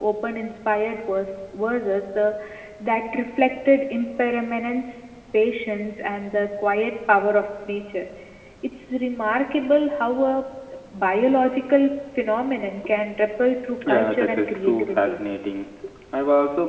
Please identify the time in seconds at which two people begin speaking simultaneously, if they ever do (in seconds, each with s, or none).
13.8 s